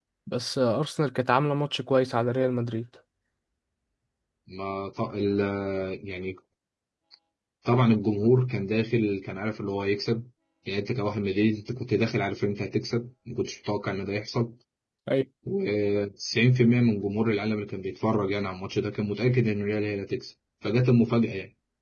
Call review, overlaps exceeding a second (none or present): none